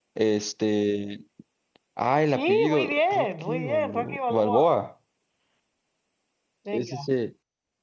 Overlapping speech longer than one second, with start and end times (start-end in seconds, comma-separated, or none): 2.3-4.7